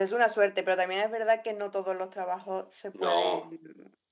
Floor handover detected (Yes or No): No